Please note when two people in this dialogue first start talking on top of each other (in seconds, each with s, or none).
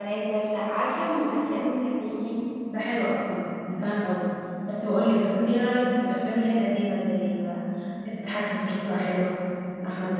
none